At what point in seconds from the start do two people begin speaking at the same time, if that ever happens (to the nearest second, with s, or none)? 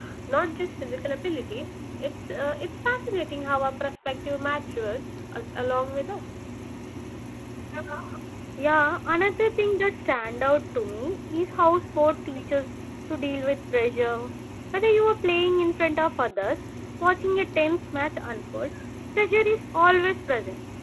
none